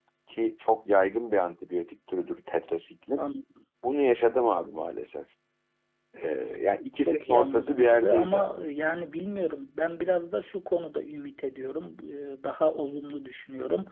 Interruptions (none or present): present